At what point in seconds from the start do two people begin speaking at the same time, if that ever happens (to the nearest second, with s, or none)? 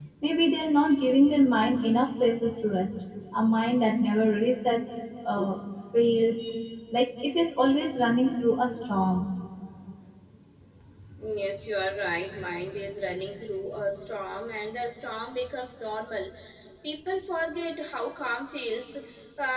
none